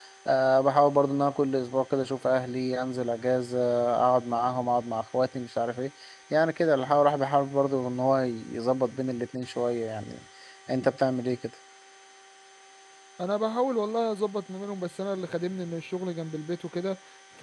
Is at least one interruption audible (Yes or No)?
No